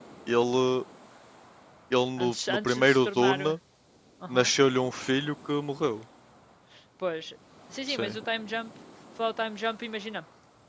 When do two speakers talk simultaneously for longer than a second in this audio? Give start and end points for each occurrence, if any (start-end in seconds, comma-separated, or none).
2.2-3.5